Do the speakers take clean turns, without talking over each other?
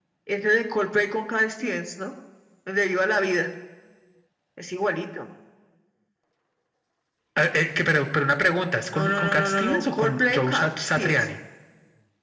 No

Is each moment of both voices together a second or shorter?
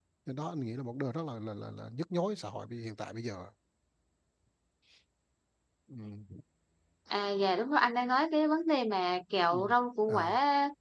Yes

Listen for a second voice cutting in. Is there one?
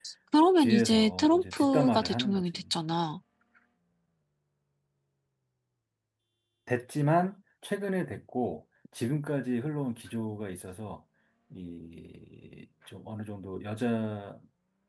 Yes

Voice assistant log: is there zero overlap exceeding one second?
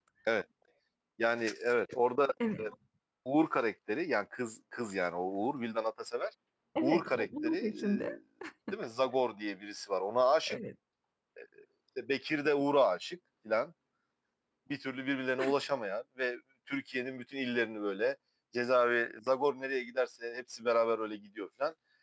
No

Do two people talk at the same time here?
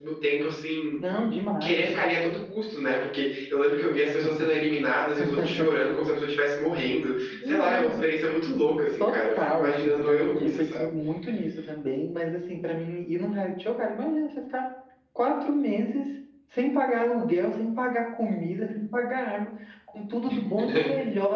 Yes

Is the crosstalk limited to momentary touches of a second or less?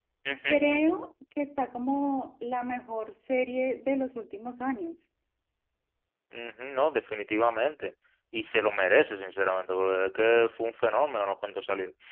Yes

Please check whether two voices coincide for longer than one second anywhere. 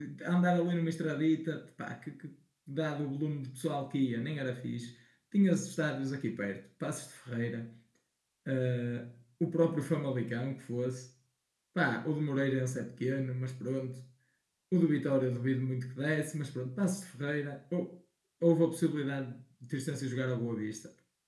No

